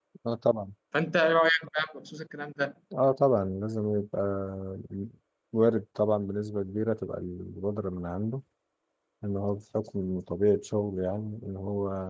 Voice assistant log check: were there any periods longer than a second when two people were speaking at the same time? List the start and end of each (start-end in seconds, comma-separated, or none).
none